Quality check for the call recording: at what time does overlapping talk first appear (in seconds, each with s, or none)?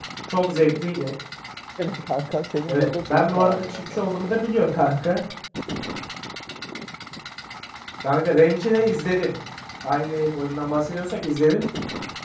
2.7 s